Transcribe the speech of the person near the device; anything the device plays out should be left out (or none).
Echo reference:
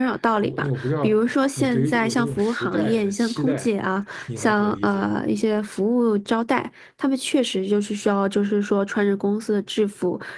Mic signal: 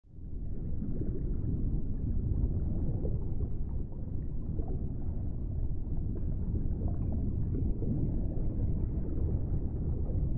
none